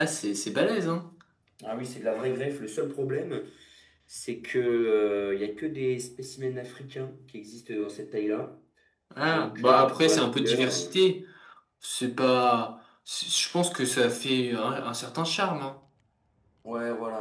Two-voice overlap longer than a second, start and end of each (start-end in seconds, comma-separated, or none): 9.2-11.0